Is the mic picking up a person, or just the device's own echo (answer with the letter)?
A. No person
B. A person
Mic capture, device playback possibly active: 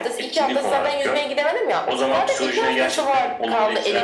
A